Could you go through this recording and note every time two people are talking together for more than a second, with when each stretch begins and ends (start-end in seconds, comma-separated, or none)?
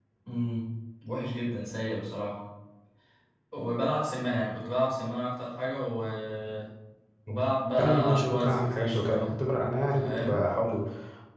7.8-9.3